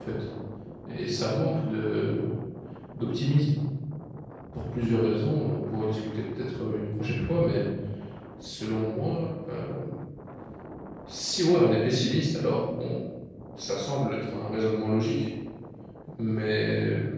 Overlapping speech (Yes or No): No